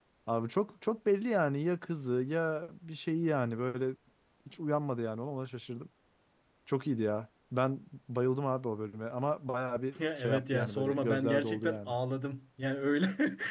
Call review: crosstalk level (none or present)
present